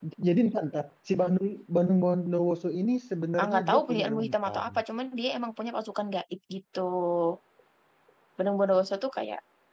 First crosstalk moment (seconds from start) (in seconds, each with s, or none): 3.4 s